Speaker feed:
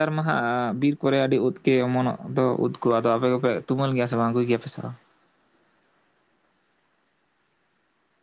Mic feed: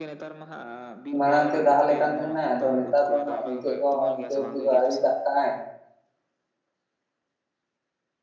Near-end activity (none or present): present